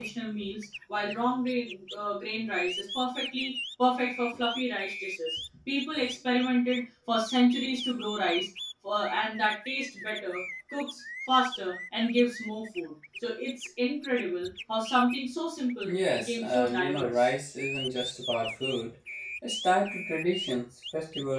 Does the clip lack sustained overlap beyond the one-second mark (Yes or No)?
No